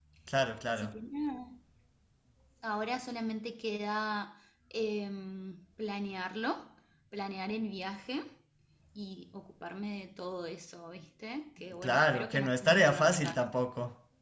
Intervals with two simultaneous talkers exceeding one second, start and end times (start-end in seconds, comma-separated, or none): 11.8-13.5